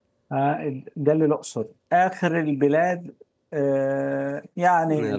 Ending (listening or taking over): listening